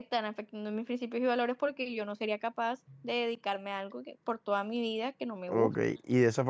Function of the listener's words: taking over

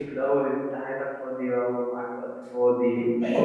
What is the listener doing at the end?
taking over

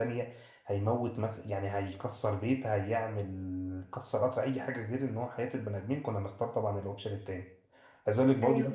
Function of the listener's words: listening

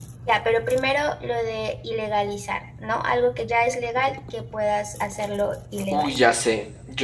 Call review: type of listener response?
taking over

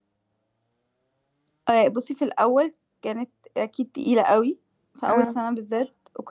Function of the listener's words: listening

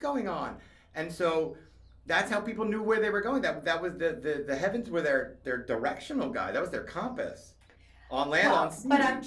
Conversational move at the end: taking over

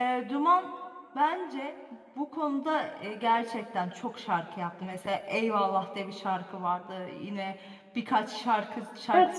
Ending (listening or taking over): taking over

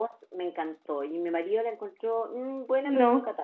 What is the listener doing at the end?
listening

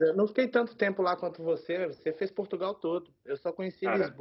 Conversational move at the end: listening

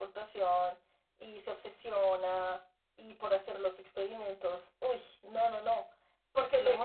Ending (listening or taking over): listening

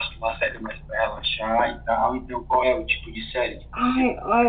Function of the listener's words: taking over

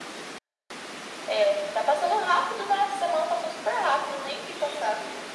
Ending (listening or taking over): taking over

